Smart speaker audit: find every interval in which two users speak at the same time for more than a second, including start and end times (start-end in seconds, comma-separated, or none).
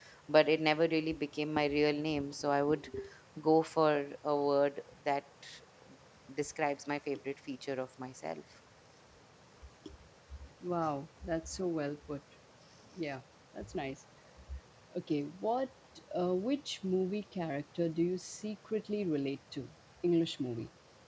none